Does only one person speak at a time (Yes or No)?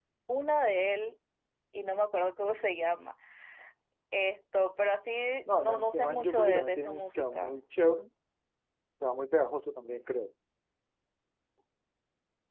No